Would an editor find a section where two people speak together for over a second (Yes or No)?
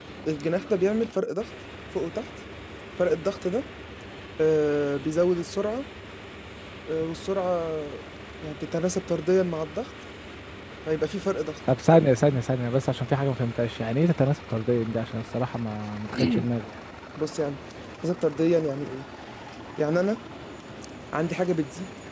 No